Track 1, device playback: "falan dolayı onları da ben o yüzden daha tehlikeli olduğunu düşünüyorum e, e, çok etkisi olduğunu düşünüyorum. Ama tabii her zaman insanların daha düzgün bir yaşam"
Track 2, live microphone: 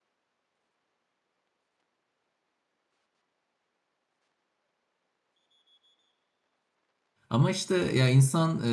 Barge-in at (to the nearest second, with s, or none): 7 s